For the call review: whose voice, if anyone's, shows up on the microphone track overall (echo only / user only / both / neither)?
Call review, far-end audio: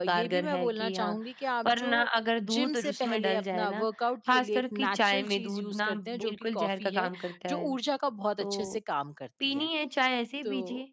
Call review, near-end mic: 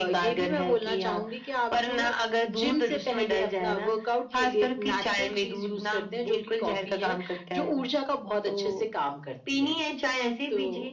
echo only